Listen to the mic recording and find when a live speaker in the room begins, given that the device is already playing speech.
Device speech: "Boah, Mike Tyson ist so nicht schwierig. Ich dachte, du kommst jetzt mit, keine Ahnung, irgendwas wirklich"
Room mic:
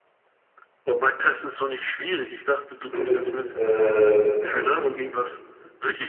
2.9 s

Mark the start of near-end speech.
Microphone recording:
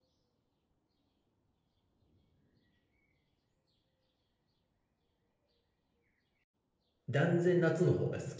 7.1 s

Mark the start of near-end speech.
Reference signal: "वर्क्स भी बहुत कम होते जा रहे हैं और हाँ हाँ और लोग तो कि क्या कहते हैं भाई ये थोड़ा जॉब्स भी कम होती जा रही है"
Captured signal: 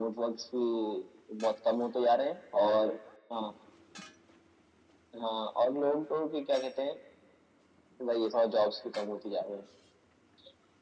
none

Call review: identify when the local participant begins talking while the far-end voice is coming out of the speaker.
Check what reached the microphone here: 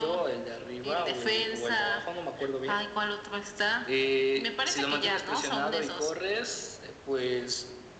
none

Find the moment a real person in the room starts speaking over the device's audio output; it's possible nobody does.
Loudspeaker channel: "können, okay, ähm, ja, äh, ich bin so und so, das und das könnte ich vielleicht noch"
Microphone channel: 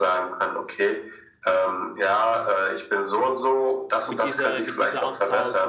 4.0 s

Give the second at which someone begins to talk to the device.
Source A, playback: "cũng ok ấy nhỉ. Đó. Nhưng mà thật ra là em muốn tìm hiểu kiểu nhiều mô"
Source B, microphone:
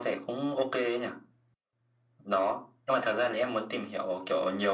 none

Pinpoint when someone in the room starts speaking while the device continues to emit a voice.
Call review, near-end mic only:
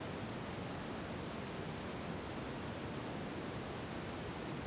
none

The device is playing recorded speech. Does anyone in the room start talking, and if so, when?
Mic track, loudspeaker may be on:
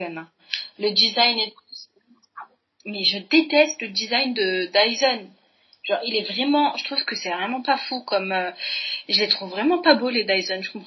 none

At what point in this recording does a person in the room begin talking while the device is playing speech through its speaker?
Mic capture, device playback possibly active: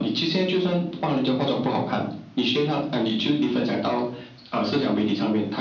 none

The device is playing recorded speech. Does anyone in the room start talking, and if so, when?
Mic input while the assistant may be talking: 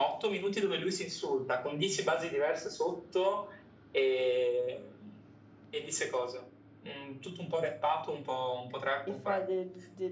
9.1 s

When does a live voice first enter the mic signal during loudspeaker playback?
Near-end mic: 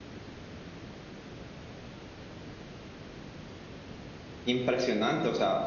4.4 s

